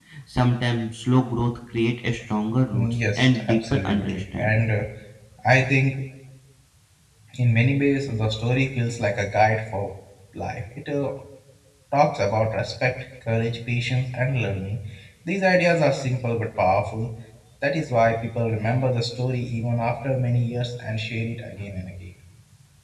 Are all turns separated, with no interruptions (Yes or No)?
No